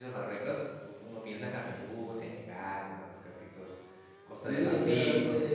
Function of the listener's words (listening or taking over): taking over